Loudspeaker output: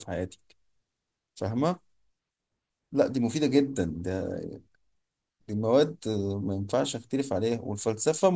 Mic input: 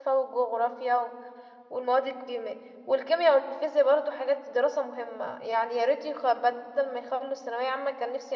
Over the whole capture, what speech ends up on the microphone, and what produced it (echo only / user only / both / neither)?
user only